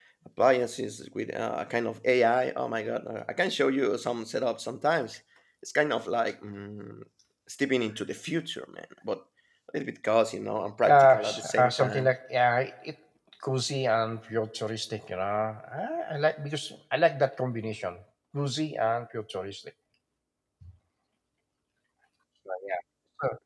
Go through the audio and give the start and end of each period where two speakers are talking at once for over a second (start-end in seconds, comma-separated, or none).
10.9-12.1